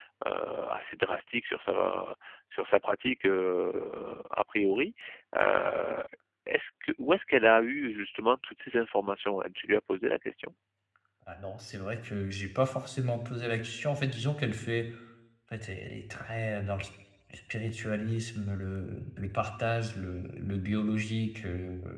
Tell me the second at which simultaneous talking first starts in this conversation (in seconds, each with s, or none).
none